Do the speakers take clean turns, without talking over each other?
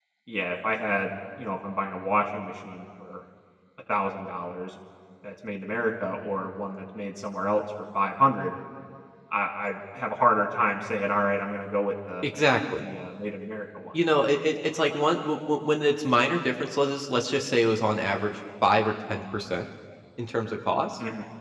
Yes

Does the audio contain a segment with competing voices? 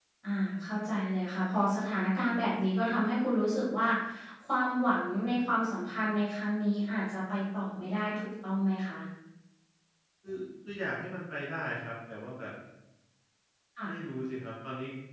No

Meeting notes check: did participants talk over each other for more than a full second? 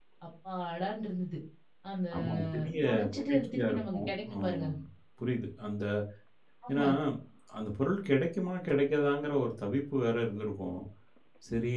Yes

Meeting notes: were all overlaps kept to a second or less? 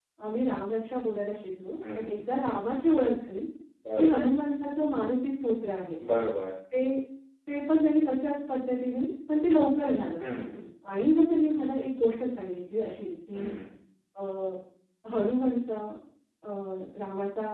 Yes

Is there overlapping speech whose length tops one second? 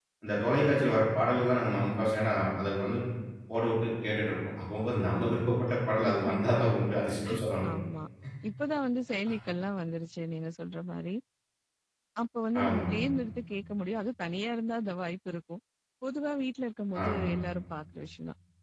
No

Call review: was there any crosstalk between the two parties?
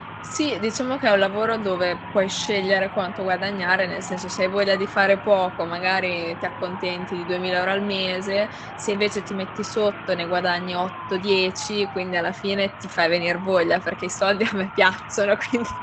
No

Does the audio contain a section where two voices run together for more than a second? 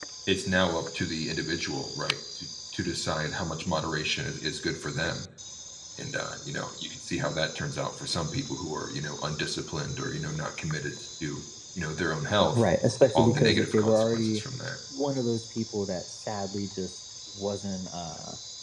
Yes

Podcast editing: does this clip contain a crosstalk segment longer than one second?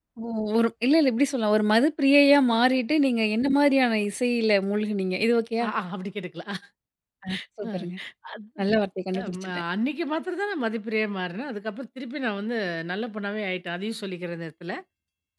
No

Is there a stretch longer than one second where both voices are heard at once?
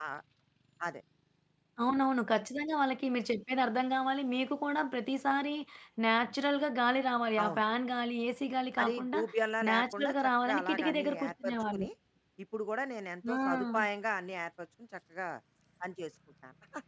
Yes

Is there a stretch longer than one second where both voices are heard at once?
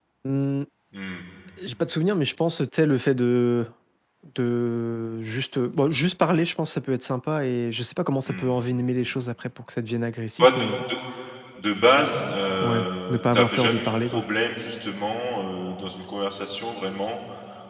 Yes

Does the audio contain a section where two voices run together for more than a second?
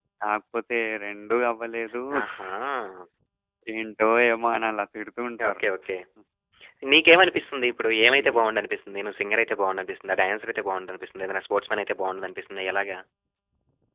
No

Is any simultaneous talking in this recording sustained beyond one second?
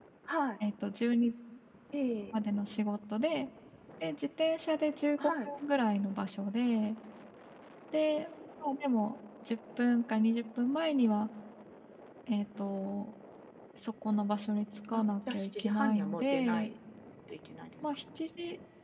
Yes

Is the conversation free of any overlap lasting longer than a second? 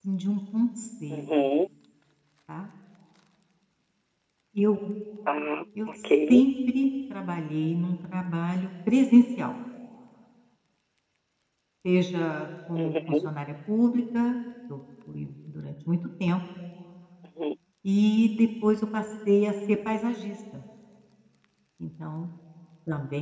Yes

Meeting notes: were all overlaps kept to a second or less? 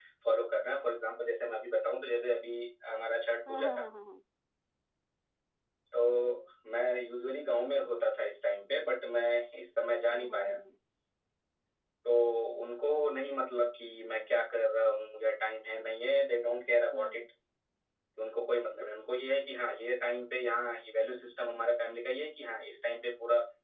Yes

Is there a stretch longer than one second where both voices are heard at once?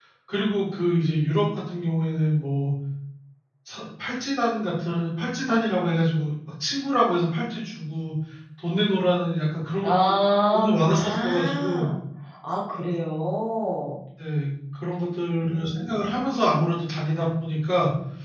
Yes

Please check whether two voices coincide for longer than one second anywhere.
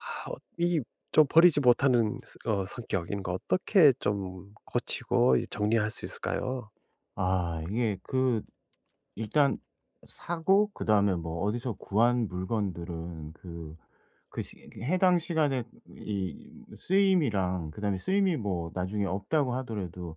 No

